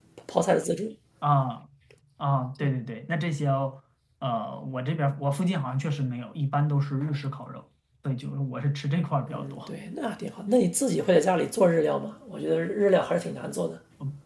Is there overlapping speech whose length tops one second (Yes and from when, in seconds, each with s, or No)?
No